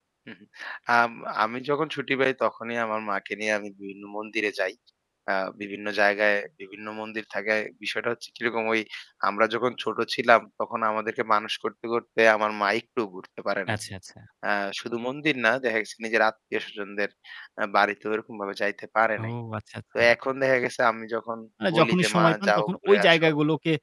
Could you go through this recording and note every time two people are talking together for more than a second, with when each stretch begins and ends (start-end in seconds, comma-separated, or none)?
21.7-23.3